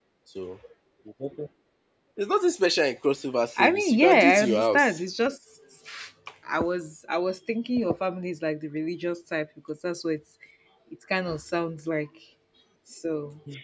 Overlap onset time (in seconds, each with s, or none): 3.6 s